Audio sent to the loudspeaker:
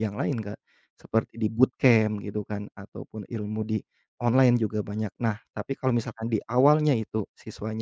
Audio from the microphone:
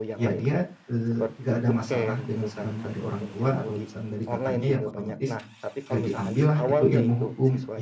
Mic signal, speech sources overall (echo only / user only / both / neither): both